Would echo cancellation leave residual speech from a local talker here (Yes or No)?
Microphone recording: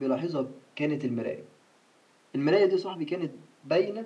No